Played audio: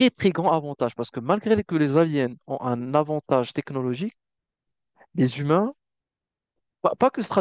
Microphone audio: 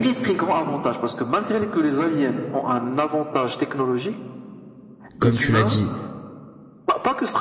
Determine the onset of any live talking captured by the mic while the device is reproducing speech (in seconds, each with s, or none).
5.2 s